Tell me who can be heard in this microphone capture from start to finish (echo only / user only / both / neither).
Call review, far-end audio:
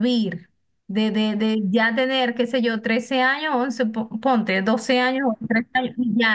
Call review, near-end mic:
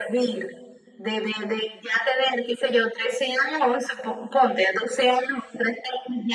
echo only